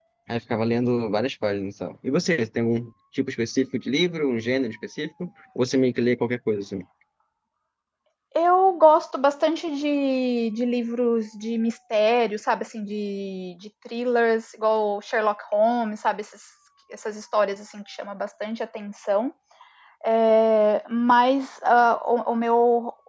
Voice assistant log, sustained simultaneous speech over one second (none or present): none